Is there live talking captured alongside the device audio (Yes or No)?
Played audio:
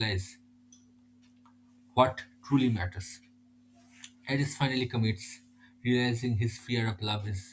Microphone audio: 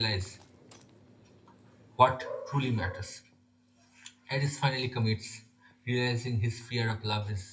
No